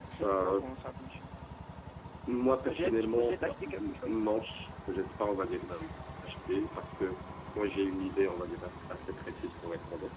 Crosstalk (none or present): present